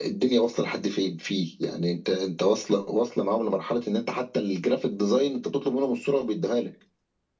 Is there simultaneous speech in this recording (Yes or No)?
No